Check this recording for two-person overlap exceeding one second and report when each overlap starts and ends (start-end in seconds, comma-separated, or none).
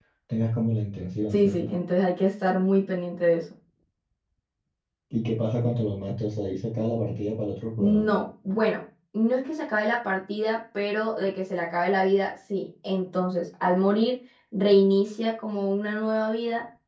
none